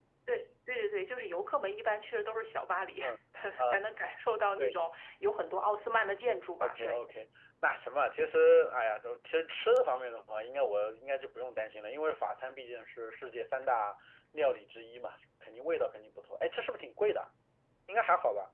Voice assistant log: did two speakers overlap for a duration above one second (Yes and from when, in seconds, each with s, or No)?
No